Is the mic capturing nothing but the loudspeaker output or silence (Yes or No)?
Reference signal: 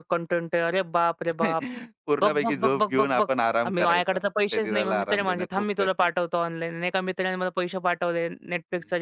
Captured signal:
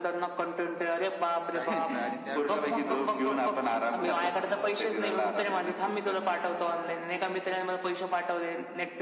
No